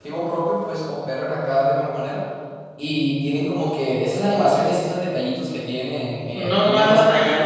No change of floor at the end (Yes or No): No